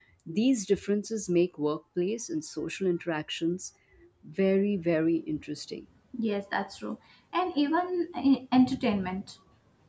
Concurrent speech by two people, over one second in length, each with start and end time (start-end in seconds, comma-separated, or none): none